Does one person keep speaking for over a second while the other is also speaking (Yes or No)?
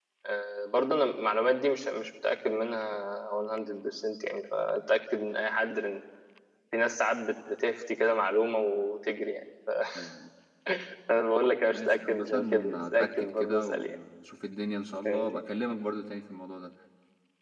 Yes